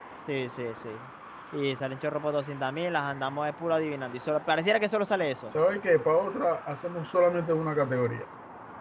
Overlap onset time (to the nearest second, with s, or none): none